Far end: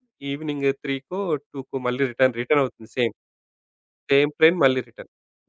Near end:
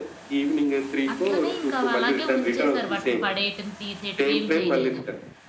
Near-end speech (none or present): present